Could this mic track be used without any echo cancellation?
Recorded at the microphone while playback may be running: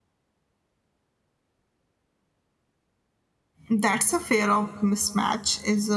Yes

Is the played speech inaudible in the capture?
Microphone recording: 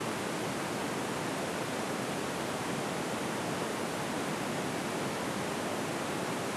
Yes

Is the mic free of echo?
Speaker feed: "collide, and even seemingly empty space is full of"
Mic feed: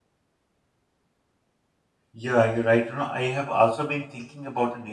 Yes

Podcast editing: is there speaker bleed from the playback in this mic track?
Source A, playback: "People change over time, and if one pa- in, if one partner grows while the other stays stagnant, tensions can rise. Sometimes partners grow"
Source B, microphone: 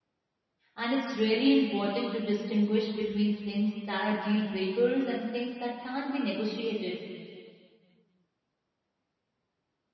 No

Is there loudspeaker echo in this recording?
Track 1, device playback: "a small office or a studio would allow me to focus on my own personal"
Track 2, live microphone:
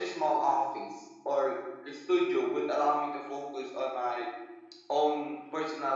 Yes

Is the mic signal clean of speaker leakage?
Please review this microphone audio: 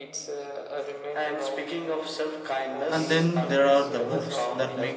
No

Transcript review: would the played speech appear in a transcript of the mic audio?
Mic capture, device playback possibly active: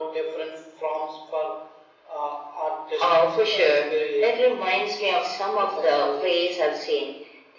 Yes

